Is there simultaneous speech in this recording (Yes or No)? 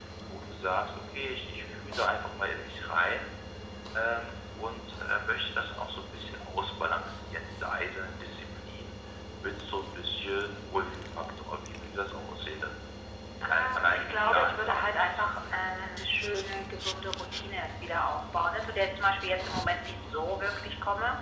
Yes